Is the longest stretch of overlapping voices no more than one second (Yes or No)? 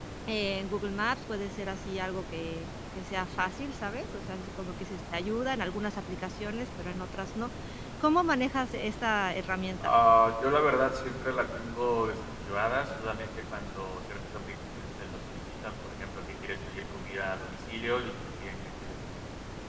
Yes